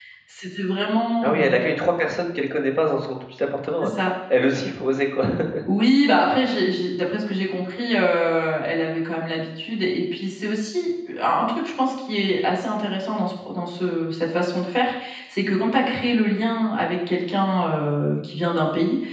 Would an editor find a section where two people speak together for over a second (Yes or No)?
No